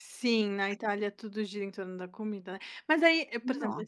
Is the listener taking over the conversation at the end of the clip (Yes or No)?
No